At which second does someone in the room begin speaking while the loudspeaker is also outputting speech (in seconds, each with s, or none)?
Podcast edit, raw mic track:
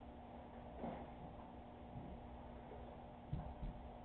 none